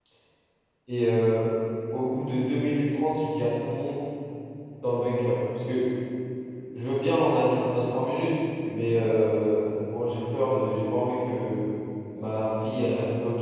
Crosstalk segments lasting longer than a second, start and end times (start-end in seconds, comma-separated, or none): none